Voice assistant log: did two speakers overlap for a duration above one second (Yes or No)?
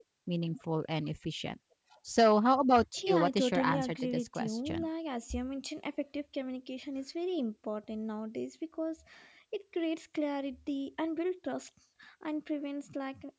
Yes